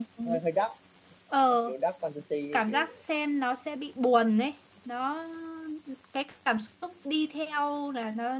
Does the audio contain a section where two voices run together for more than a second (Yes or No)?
No